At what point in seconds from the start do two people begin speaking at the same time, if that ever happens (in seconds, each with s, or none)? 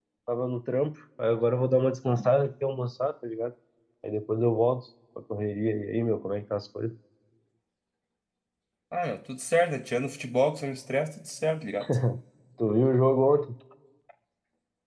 none